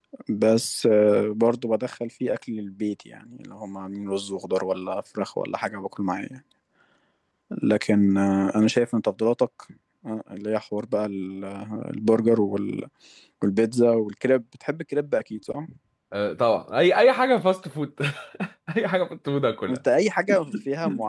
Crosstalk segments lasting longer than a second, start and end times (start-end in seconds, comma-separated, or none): none